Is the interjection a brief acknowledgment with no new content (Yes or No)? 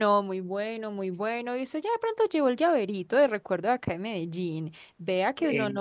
Yes